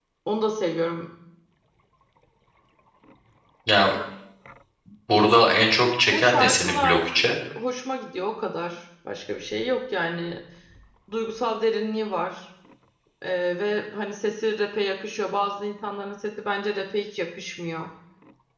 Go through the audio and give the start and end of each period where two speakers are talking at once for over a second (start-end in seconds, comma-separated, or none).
6.1-7.4